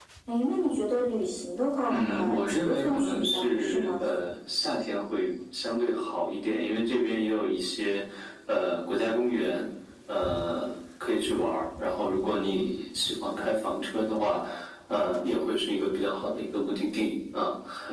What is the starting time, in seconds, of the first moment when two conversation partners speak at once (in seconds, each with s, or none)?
1.9 s